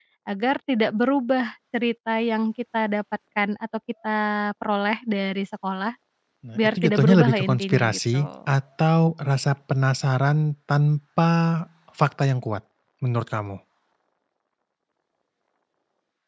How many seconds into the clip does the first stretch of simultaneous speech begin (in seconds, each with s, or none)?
6.6 s